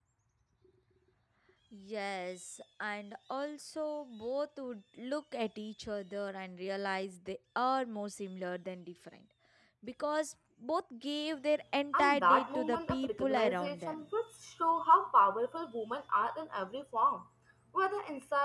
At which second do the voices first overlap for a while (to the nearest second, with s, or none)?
12 s